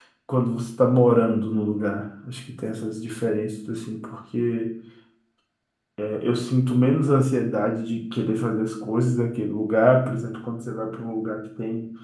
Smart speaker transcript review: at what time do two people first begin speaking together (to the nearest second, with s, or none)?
none